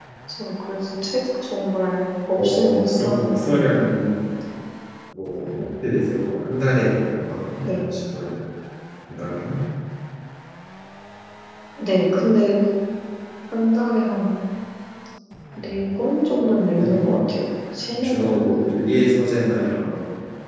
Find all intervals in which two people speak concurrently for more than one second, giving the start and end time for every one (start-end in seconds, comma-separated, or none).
2.4-3.6